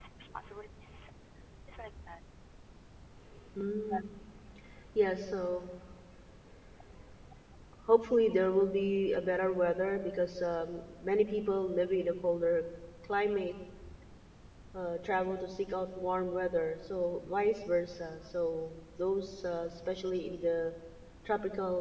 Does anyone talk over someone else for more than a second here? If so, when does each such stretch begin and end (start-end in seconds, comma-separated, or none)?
none